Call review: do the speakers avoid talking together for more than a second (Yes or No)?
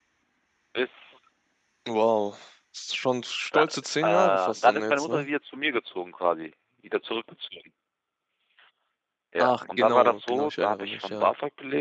No